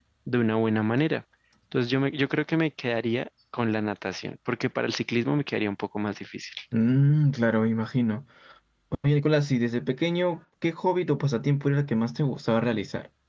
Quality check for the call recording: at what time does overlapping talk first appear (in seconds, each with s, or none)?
none